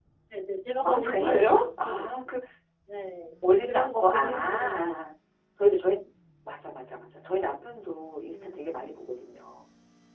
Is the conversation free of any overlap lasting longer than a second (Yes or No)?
No